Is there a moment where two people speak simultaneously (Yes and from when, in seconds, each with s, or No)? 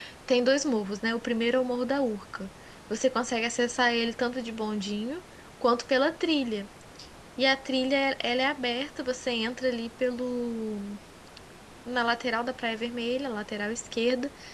No